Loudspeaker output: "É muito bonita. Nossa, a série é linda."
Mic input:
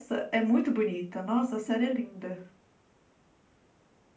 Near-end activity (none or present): none